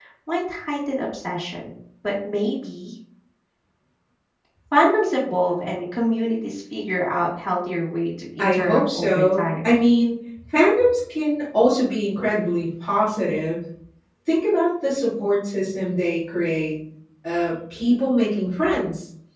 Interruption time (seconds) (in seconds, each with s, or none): 8.4 s